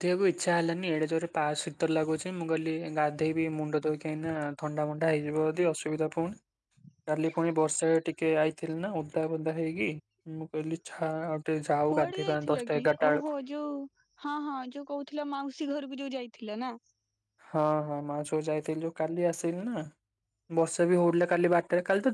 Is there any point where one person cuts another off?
Yes, from 11.9 s

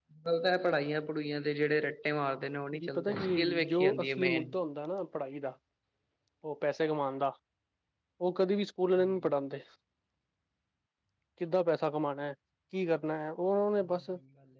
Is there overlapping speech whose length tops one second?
Yes, from 2.8 s

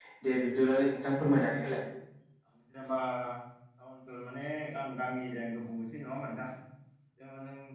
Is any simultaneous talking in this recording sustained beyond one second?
No

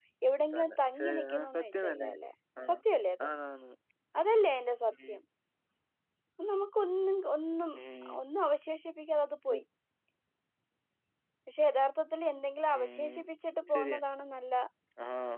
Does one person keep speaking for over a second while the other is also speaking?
Yes, from 0.5 s

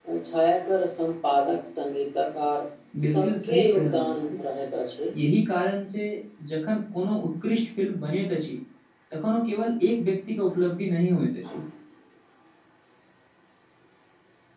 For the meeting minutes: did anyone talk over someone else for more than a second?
Yes, from 3.1 s

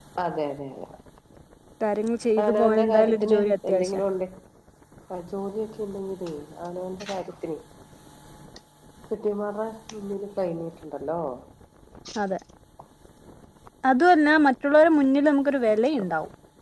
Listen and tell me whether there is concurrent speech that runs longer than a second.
Yes, from 2.4 s

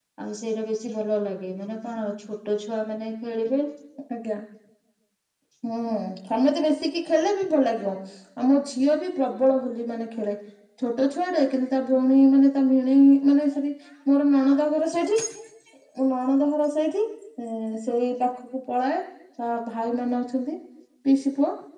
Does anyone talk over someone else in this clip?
No

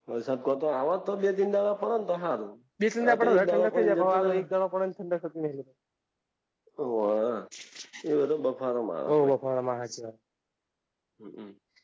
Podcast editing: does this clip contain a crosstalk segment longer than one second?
Yes, from 3.0 s

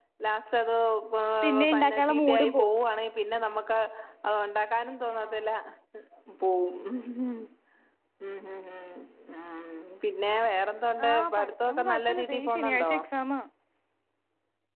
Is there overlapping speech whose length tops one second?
Yes, from 1.4 s

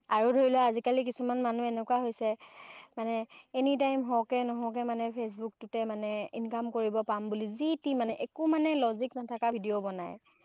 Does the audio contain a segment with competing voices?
No

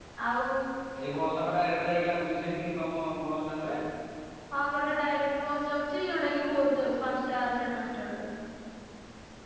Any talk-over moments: No

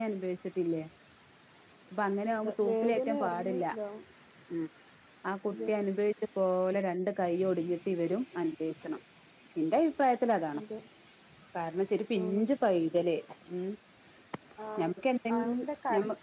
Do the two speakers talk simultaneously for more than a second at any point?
Yes, from 2.3 s

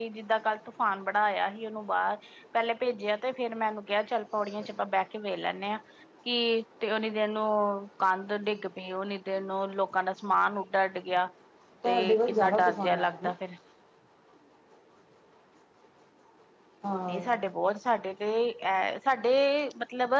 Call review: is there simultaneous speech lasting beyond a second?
Yes, from 11.8 s

